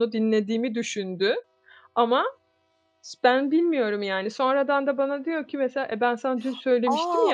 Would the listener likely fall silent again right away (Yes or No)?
No